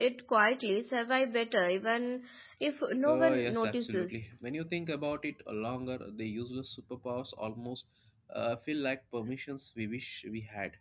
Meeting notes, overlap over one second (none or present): present